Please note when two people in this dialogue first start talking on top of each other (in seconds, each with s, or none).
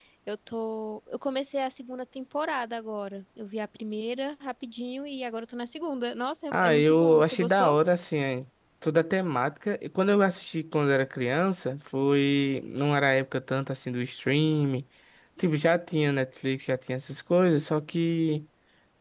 6.5 s